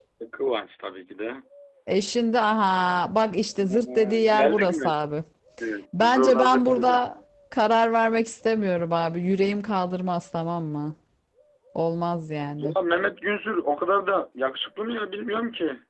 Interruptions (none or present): present